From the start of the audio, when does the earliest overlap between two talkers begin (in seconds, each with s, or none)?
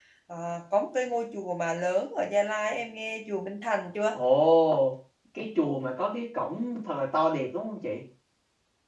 none